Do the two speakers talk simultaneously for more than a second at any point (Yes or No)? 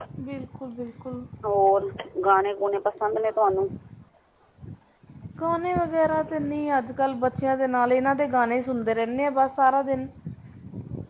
No